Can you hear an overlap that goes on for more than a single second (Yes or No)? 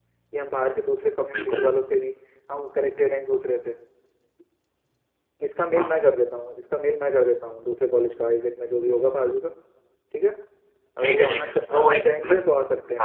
Yes